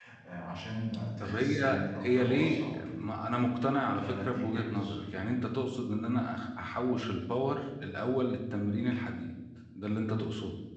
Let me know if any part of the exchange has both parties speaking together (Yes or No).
Yes